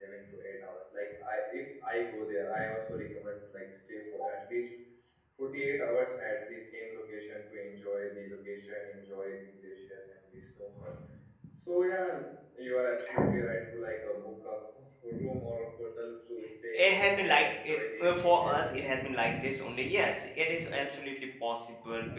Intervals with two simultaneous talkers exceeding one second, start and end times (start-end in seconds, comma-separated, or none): 16.7-18.9